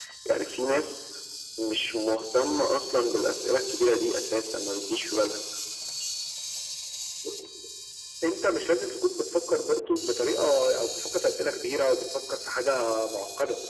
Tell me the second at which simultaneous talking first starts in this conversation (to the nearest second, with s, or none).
none